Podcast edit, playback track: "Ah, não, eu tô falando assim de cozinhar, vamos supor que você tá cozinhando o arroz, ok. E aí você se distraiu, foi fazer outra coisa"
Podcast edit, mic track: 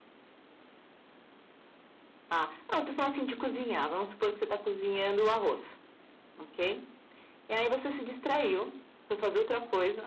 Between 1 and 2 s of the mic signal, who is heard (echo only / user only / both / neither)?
neither